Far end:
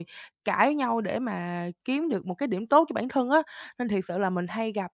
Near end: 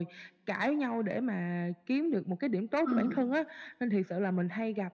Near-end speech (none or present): present